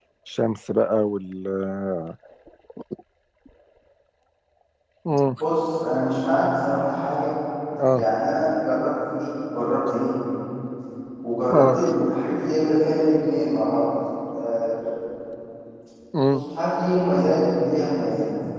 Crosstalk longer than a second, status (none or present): none